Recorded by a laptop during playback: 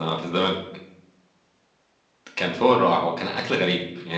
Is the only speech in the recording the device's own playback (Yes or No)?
Yes